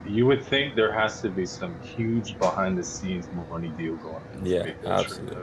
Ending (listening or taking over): taking over